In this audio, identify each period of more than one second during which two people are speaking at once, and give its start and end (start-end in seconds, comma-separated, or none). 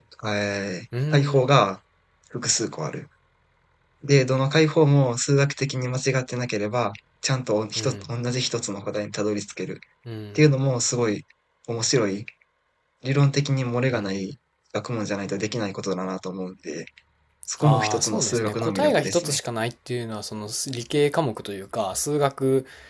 17.6-19.4